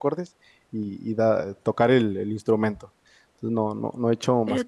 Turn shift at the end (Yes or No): Yes